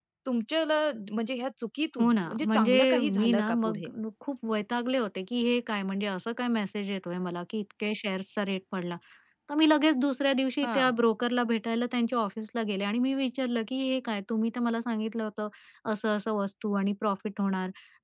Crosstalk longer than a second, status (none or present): present